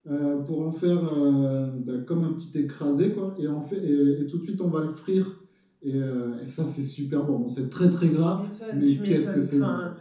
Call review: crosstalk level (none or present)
present